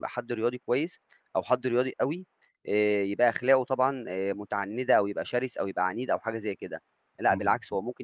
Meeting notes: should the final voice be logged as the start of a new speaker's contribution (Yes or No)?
No